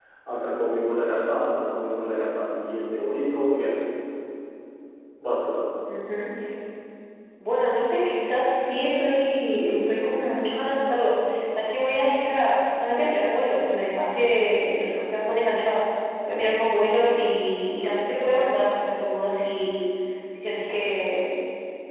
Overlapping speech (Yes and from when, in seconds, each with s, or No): No